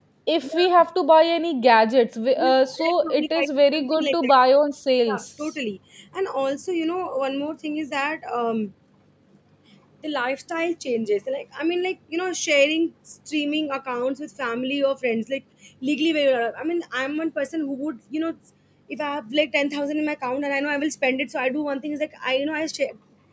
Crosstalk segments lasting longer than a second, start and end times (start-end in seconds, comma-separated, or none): 2.4-4.3